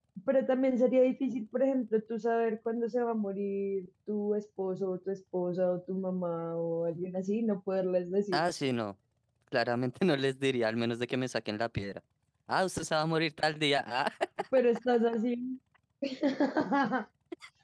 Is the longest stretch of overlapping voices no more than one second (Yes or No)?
Yes